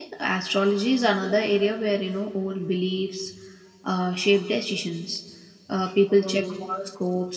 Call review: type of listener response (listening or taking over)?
listening